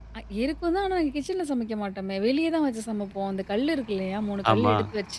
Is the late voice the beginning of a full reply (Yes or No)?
No